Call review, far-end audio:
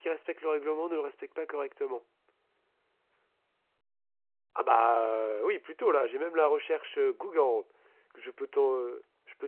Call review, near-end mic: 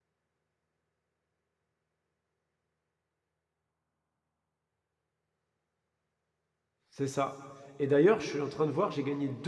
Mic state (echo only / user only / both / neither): user only